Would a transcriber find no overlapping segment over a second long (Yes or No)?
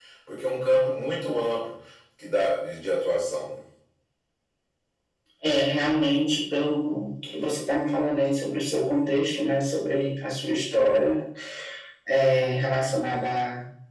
Yes